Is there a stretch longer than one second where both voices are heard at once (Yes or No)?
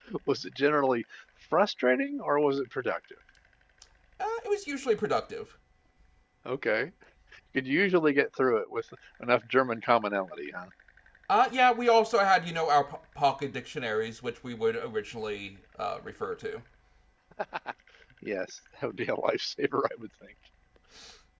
No